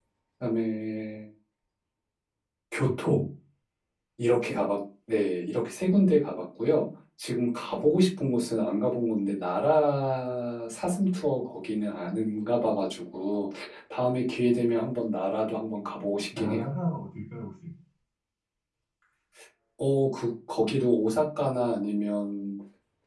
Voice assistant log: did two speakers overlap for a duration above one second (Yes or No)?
No